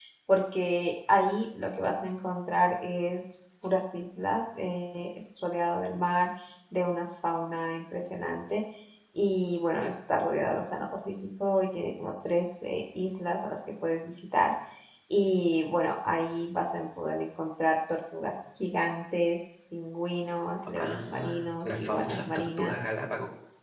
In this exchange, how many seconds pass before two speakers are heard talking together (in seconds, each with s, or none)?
20.8 s